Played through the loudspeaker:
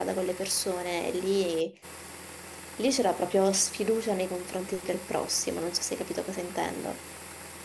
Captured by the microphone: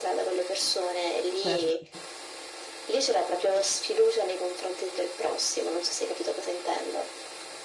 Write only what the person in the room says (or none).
certo.